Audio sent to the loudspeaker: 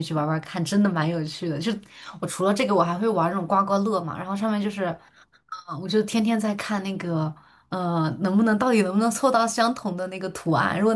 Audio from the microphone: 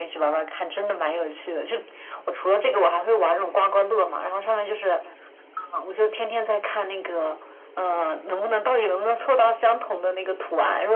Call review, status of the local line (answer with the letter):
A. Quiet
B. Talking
A